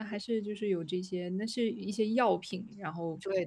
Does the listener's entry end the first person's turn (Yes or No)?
Yes